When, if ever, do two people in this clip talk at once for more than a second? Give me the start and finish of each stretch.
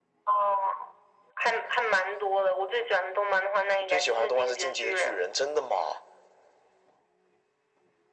3.9-5.2

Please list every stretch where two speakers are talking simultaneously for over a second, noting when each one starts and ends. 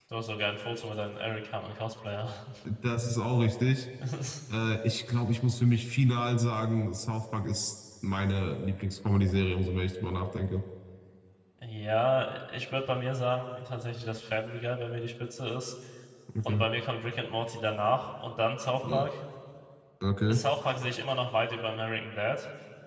none

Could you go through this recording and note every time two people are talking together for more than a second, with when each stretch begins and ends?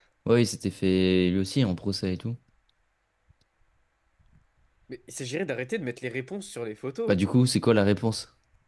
none

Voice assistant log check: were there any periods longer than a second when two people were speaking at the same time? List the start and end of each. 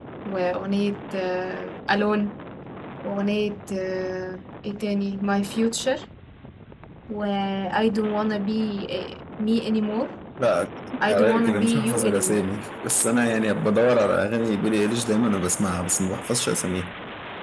11.1-12.5

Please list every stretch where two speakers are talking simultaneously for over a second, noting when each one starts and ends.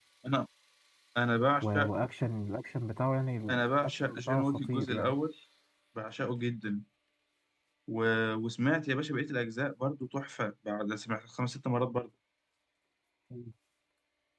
3.5-5.2

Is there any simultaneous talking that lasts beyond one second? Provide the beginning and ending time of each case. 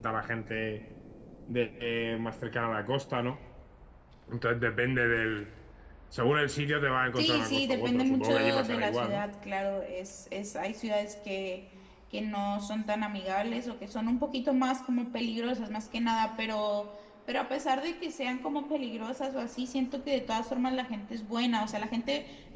7.2-9.2

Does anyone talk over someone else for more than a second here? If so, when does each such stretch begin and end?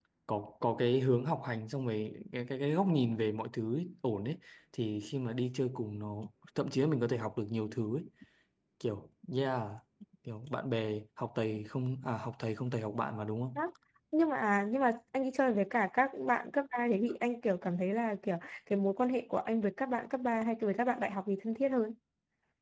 none

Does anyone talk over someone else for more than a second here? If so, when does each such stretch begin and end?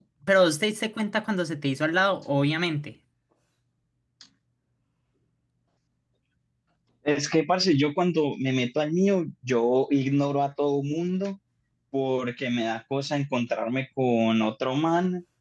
none

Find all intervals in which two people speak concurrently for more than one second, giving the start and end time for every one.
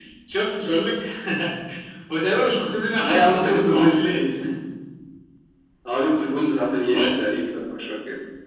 3.0-4.2

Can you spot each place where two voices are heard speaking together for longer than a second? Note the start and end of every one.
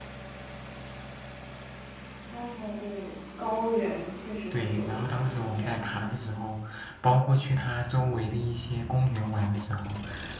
4.5-6.0

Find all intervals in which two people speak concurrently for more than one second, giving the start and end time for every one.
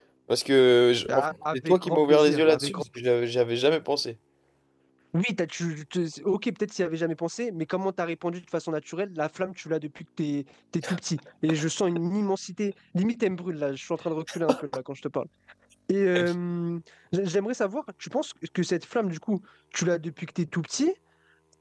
1.1-2.8

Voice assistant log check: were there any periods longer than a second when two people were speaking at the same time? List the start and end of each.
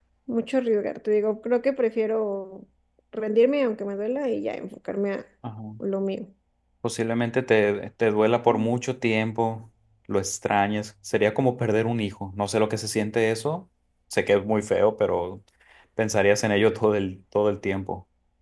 none

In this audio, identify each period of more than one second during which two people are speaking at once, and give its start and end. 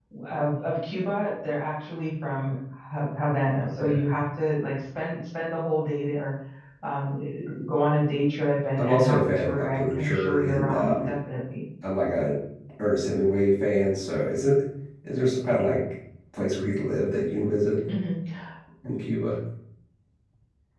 8.8-11.1

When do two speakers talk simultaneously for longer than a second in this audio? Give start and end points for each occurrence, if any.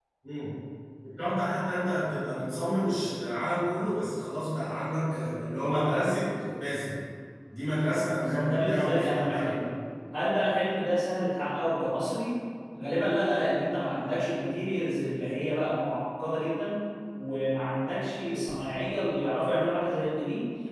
8.2-9.6

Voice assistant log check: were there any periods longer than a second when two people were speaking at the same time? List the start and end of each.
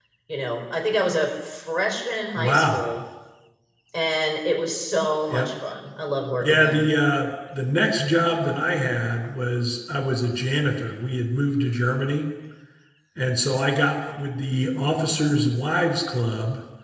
none

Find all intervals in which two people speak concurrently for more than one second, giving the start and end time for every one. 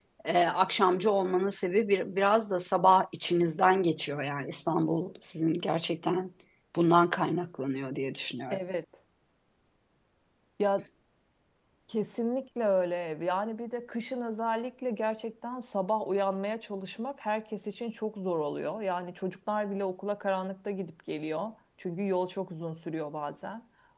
none

